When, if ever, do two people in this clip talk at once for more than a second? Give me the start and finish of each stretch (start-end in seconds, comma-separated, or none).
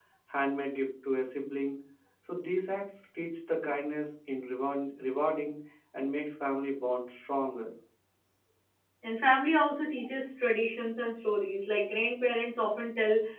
none